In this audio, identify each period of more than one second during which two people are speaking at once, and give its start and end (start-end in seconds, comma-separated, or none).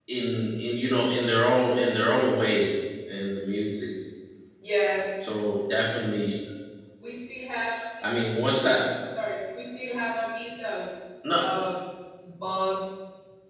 none